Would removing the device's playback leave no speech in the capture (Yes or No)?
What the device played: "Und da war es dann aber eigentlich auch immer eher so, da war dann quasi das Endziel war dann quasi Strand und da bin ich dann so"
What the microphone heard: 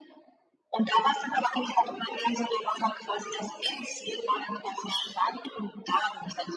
Yes